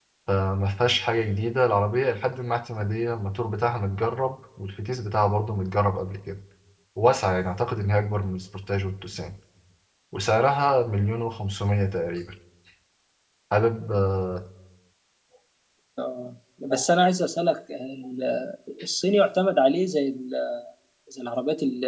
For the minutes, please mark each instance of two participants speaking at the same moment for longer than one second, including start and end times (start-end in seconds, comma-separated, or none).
none